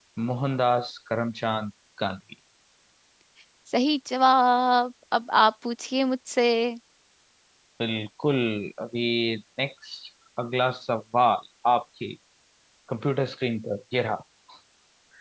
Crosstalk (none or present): none